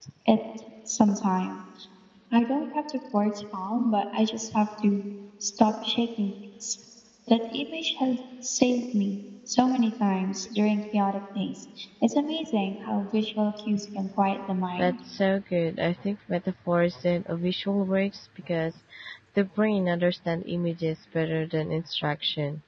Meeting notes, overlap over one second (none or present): none